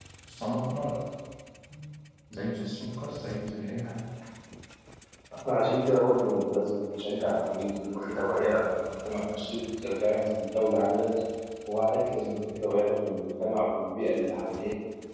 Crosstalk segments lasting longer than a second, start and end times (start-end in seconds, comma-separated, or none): none